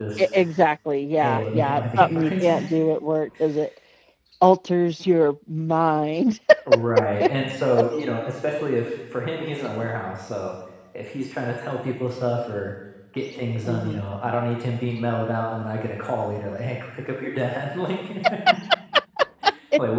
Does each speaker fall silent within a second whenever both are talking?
No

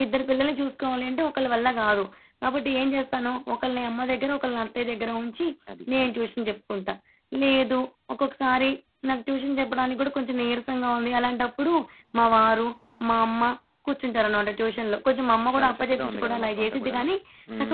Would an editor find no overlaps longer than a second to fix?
No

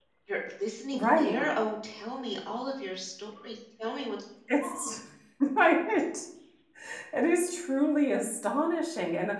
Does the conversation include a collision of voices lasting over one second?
No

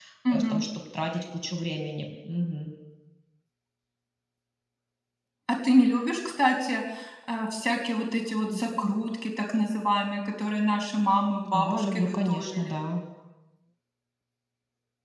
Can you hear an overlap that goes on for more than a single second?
Yes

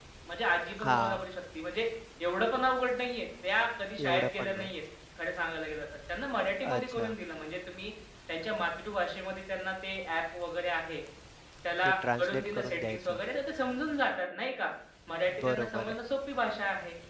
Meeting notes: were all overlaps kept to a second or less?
No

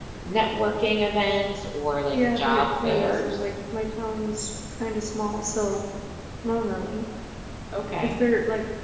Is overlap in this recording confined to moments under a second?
No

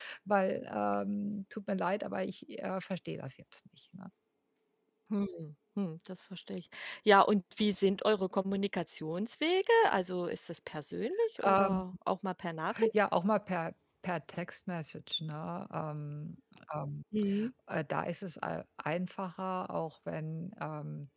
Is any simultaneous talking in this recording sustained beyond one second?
No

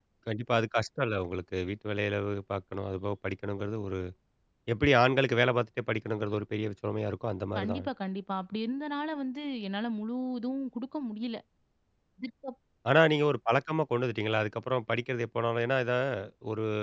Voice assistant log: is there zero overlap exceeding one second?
Yes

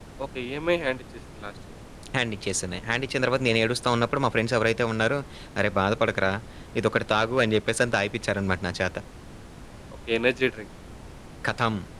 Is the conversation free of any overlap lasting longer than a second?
Yes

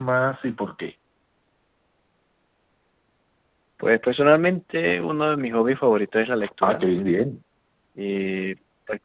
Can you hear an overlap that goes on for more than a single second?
No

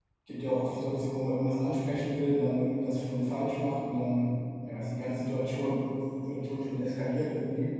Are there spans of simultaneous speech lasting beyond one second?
No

